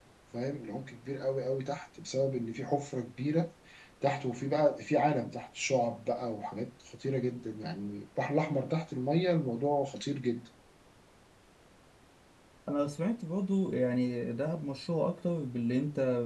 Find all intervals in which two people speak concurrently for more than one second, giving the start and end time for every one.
none

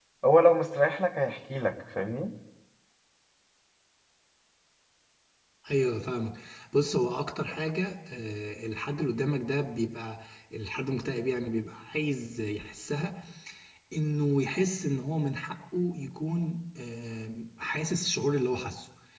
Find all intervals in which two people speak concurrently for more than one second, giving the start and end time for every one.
none

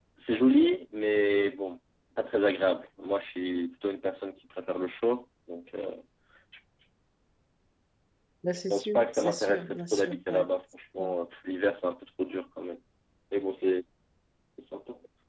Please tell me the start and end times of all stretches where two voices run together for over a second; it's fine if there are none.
8.7-10.5

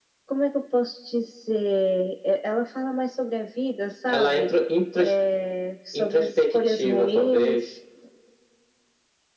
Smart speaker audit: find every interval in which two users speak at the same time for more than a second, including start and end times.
5.9-7.7

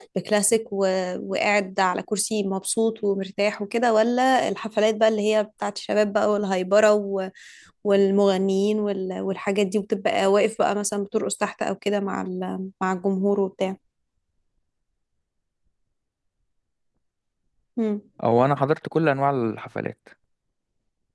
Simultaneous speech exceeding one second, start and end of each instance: none

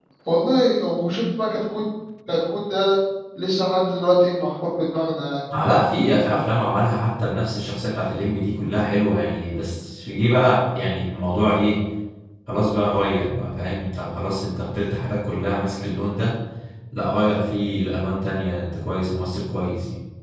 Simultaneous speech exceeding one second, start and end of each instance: none

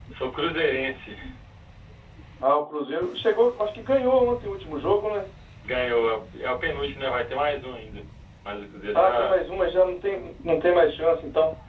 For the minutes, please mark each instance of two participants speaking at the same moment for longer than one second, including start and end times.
none

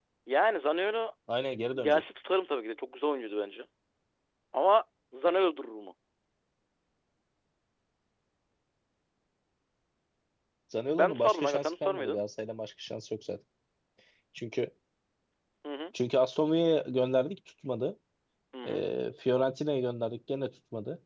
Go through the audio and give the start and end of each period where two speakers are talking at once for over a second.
11.0-12.2

